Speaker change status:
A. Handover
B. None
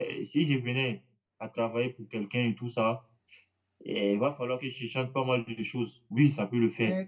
A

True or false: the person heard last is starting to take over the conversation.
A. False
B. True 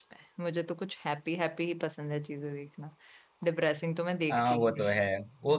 B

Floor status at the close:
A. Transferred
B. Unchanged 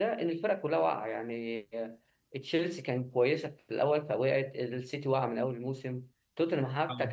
B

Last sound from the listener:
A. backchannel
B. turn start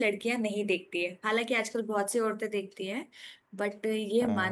A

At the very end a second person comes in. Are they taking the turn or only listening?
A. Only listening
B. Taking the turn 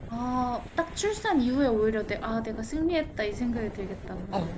B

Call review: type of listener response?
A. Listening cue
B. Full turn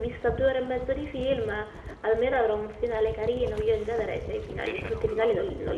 A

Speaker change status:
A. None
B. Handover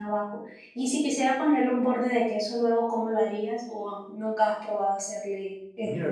B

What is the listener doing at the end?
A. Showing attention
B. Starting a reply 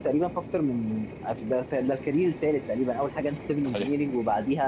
A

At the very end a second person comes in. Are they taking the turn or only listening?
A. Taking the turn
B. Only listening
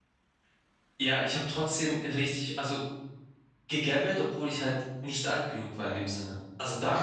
B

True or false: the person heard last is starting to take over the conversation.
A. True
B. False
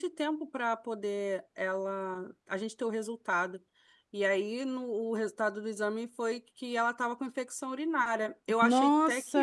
A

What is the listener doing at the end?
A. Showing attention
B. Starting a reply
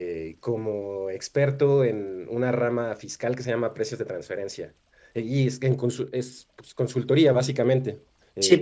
B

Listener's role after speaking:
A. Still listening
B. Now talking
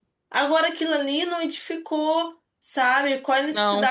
A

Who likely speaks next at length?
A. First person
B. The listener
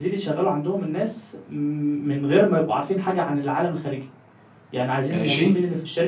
A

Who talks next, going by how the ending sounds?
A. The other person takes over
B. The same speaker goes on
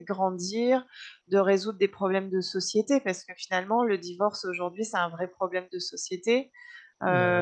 B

